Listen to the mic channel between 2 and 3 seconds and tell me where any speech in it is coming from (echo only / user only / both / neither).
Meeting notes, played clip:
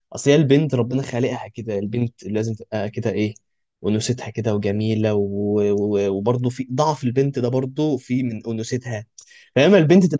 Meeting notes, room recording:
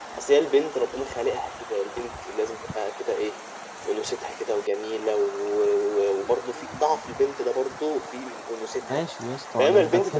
echo only